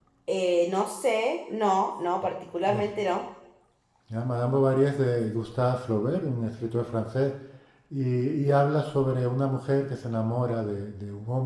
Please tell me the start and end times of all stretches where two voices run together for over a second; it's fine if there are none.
none

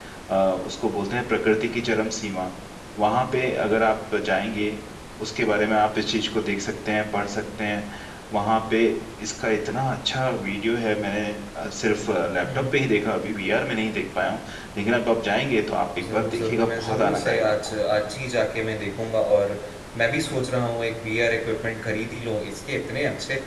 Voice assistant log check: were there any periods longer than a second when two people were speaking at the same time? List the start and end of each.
16.1-17.8

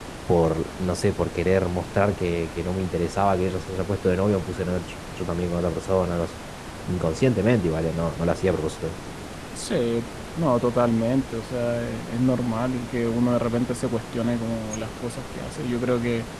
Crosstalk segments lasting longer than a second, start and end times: none

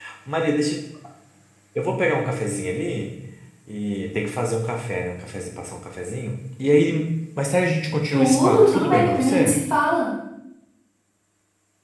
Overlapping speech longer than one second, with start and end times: 8.1-9.6

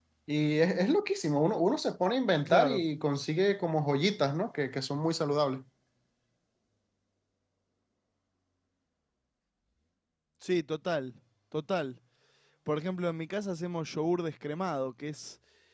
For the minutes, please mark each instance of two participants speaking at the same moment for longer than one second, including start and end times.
none

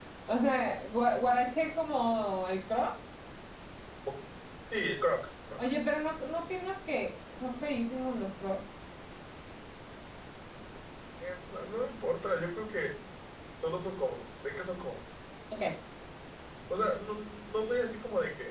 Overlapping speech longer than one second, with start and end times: none

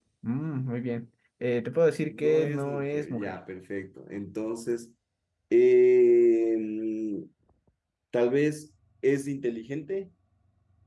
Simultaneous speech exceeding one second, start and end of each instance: 2.1-3.4

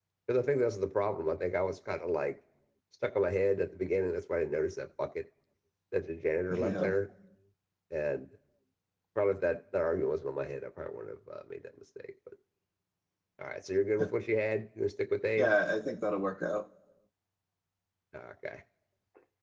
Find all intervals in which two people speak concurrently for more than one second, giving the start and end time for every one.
none

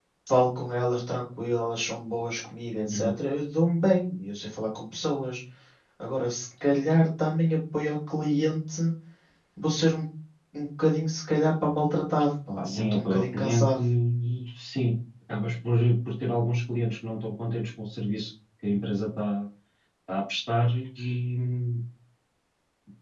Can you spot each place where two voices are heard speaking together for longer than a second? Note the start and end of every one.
12.6-13.8

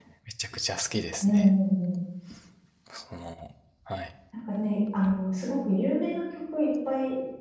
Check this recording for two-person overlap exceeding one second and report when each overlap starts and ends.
none

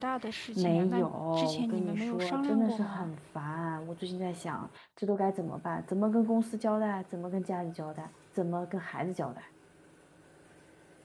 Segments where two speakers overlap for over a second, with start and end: 0.6-3.1

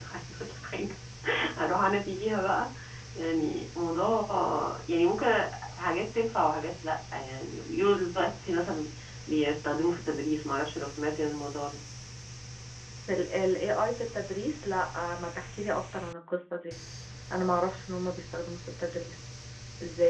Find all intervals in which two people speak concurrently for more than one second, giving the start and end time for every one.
none

